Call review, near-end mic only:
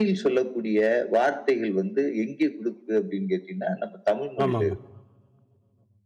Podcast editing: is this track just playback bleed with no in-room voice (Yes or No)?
No